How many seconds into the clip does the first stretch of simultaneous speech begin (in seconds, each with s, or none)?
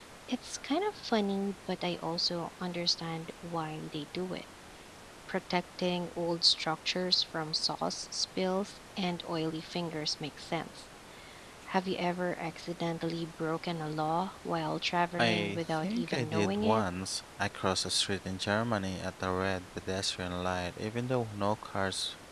15.2 s